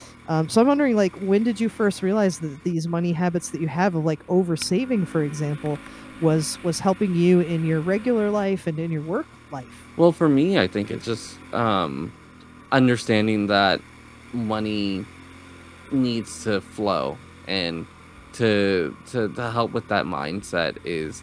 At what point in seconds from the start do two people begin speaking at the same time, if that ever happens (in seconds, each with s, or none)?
none